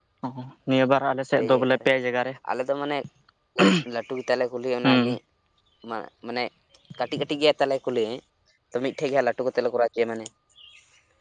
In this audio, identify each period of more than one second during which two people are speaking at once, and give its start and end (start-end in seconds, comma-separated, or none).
none